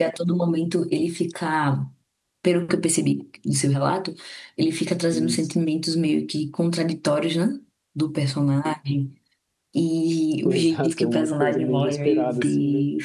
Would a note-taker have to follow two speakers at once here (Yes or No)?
Yes